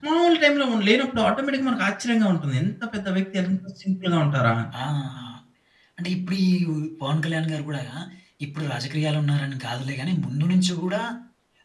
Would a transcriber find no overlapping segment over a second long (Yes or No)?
Yes